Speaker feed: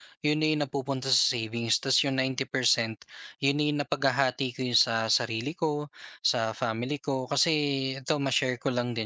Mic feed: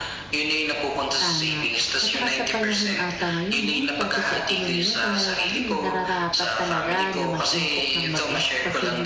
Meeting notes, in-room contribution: present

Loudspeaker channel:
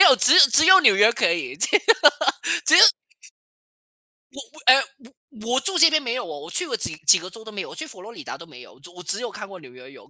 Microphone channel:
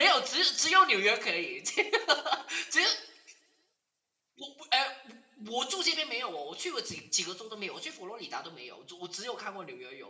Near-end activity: none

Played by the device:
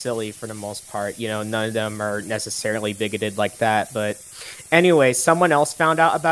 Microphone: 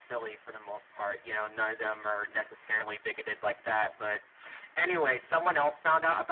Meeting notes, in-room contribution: none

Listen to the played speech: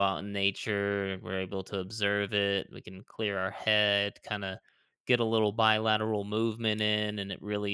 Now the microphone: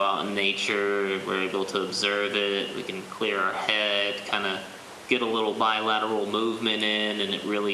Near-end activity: none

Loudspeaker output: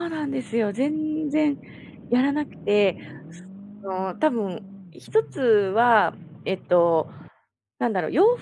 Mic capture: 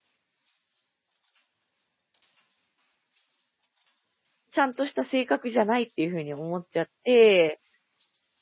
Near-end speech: present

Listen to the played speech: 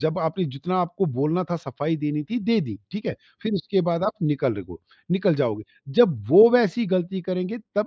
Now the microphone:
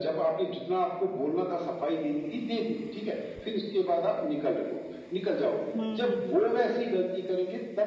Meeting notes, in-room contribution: present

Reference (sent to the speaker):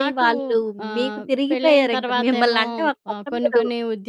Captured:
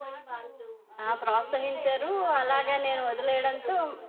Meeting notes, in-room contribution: present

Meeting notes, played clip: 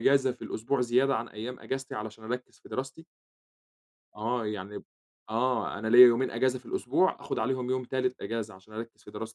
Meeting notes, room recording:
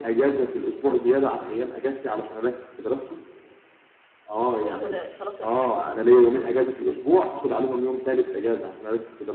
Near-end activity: present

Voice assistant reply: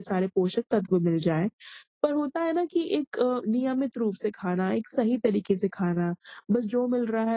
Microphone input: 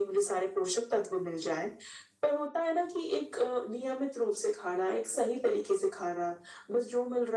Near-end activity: none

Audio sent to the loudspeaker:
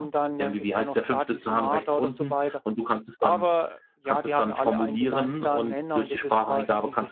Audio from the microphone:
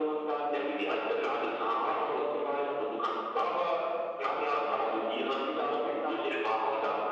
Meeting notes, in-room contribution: none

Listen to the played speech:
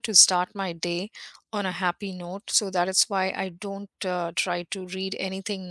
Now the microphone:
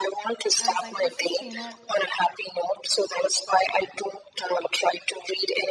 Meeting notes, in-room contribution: present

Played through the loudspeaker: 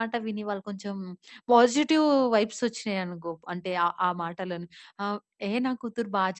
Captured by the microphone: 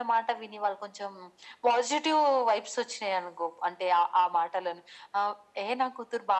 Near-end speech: none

